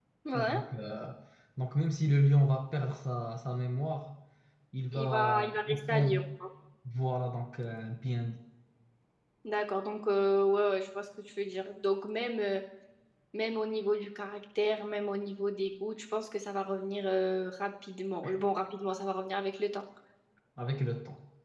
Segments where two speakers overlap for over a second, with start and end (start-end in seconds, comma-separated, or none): 4.9-6.1